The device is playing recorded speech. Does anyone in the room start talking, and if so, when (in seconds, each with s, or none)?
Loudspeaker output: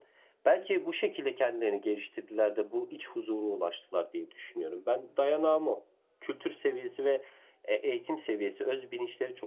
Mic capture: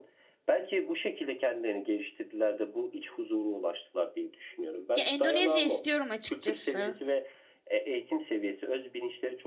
4.9 s